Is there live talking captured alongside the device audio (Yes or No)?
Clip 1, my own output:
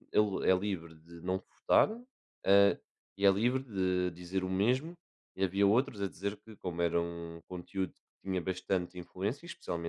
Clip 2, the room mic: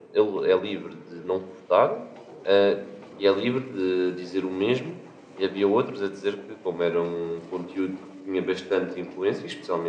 No